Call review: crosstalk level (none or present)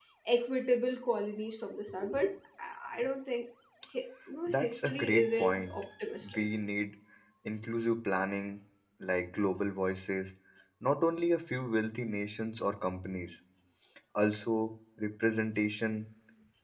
present